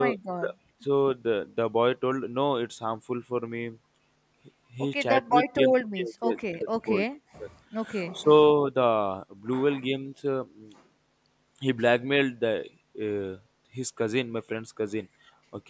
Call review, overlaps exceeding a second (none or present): present